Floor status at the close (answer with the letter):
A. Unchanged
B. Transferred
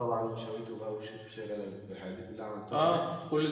B